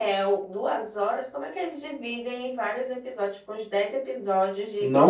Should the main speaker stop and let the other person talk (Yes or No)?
Yes